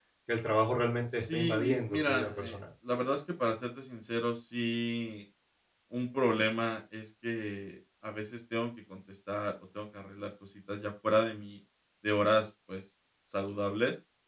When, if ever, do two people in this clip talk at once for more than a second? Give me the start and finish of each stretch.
1.3-2.6

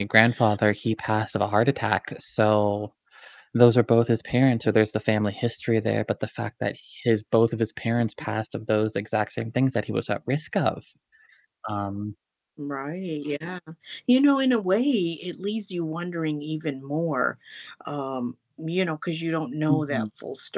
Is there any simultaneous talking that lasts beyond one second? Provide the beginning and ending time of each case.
none

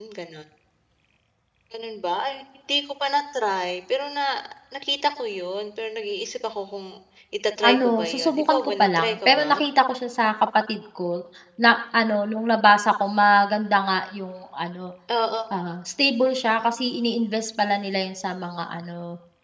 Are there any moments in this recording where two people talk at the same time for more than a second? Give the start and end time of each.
7.7-9.5

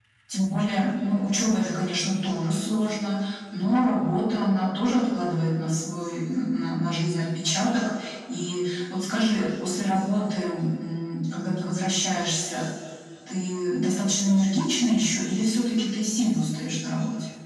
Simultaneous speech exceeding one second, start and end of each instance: none

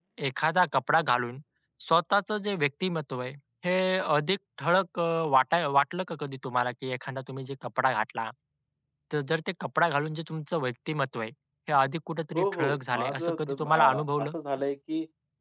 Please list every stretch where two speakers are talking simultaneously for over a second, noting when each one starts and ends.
12.4-14.3

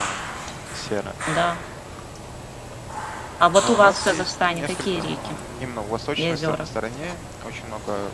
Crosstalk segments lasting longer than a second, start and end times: 3.6-5.4

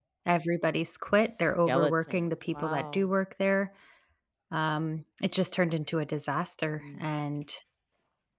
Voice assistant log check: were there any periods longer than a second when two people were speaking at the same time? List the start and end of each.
1.3-3.1

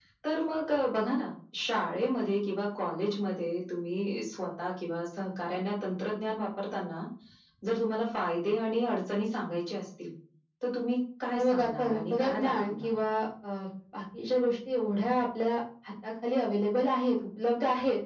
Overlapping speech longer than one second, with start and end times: 11.3-13.0

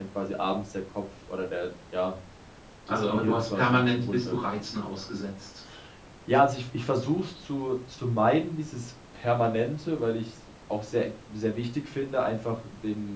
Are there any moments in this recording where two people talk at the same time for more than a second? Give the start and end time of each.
2.9-4.4

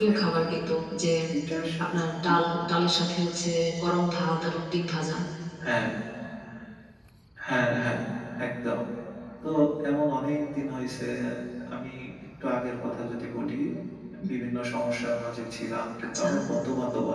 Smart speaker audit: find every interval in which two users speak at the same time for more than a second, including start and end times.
none

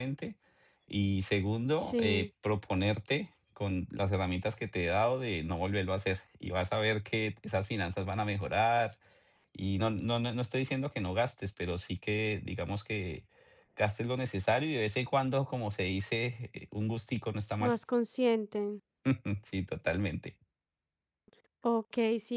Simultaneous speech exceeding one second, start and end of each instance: none

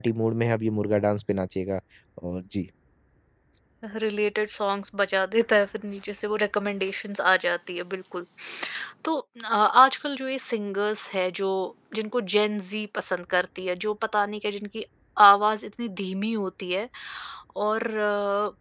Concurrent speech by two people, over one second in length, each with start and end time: none

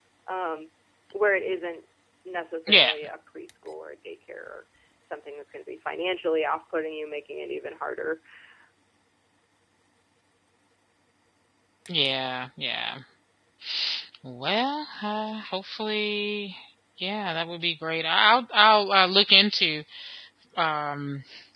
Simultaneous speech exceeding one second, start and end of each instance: none

